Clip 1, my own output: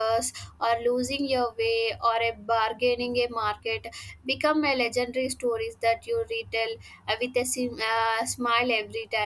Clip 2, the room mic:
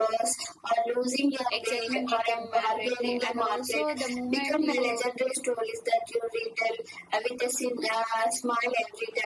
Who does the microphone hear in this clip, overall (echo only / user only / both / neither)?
both